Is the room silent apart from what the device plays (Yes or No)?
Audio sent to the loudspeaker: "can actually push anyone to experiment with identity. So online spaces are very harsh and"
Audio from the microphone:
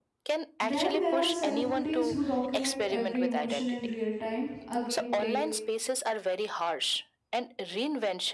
No